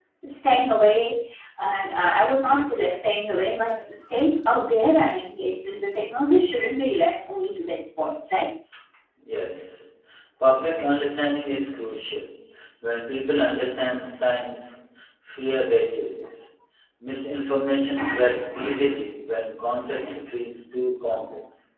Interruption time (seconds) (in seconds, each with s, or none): none